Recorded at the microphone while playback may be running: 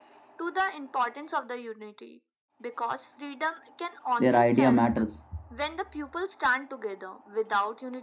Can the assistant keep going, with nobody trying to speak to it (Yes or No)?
No